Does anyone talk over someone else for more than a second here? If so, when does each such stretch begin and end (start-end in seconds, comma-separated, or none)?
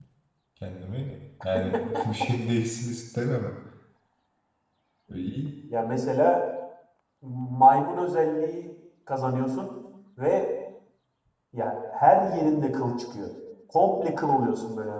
none